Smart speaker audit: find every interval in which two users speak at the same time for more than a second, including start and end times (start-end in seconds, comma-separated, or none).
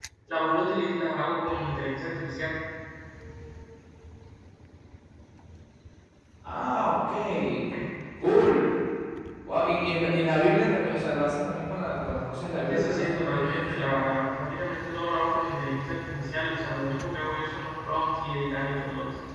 12.7-13.9